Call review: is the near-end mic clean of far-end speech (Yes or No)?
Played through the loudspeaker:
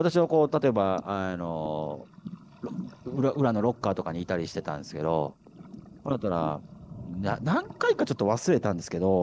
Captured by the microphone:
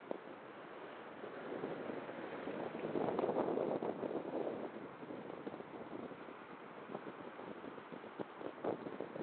Yes